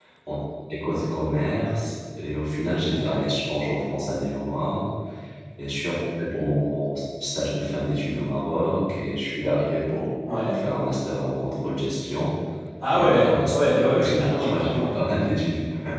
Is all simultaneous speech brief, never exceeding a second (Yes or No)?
No